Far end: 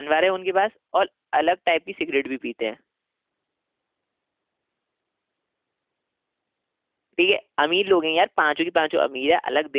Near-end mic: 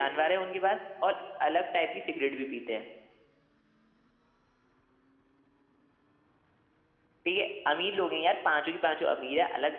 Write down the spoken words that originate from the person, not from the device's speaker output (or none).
none